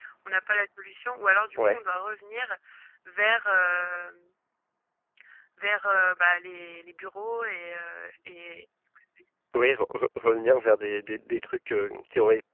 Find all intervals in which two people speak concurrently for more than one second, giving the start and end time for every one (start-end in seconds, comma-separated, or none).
none